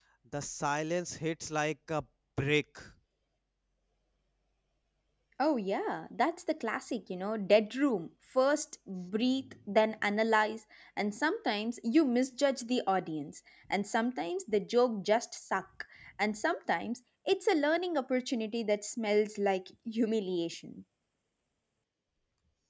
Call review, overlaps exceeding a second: none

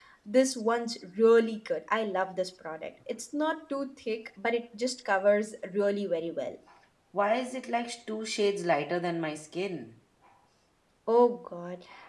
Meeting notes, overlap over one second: none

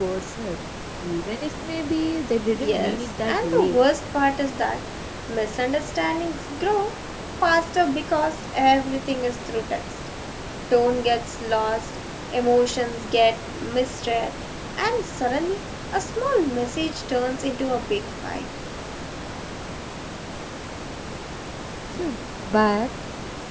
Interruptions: present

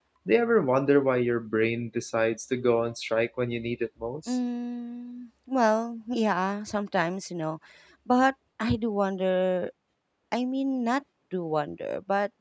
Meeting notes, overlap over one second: none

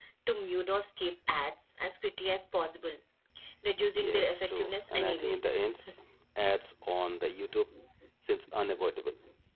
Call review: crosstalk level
present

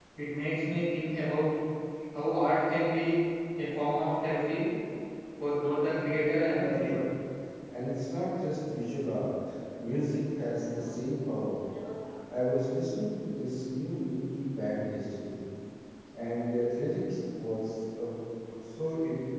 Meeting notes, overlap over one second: none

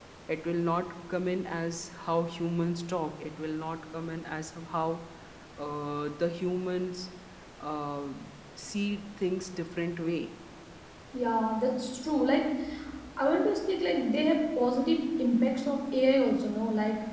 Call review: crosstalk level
none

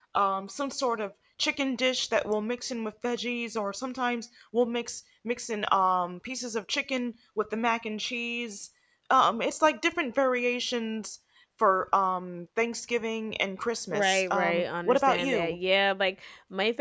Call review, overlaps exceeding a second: present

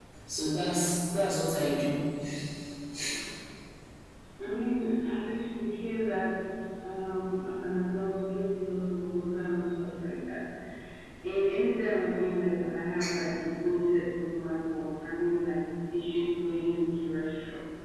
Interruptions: none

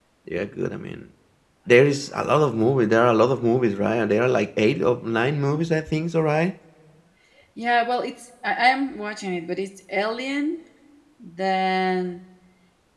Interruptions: none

